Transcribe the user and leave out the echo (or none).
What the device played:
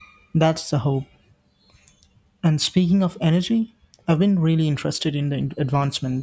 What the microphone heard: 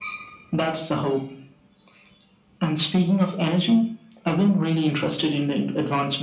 none